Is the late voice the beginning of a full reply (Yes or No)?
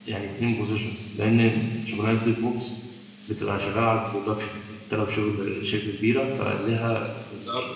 Yes